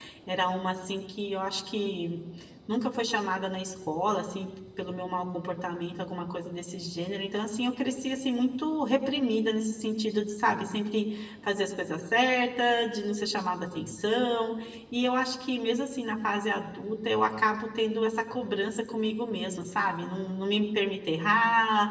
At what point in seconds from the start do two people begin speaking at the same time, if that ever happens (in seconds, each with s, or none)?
none